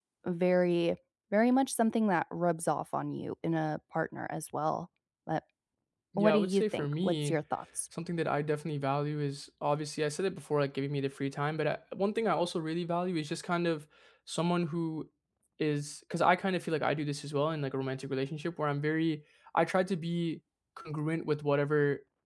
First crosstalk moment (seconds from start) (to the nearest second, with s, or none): 6 s